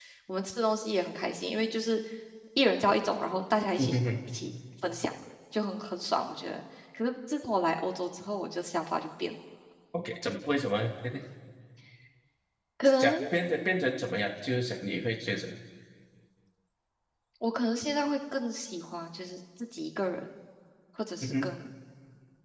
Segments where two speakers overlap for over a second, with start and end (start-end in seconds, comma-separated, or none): none